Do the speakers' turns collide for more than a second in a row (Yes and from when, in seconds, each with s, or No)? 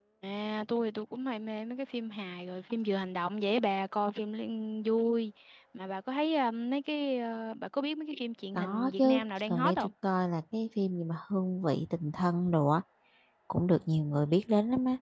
Yes, from 8.5 s